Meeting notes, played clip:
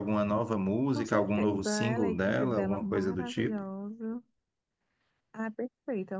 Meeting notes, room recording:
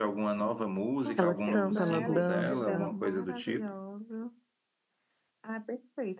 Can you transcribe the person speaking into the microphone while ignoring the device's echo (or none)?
Ela canta, ela dança,